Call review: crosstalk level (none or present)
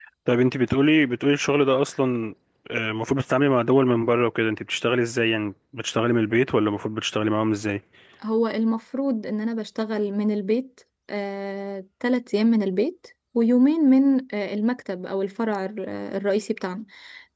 none